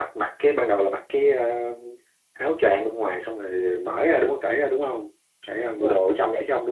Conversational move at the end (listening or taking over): taking over